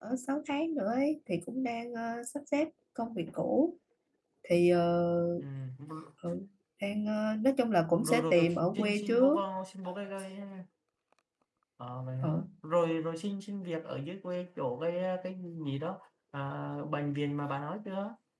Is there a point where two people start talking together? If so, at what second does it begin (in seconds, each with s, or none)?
8.0 s